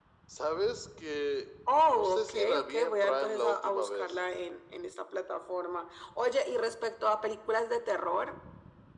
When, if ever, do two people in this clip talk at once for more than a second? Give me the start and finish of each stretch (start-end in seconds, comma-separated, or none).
1.9-4.2